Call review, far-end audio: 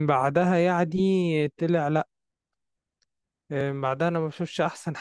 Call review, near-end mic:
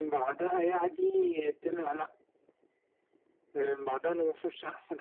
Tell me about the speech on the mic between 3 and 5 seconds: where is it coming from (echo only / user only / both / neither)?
echo only